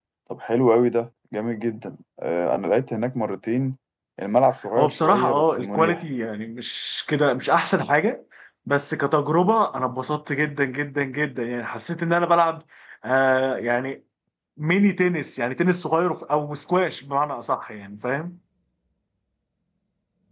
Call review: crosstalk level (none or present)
present